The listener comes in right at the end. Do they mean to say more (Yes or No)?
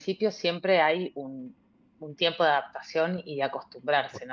No